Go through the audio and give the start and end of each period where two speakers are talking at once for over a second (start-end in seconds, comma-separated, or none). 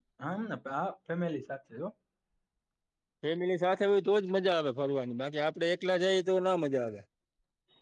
none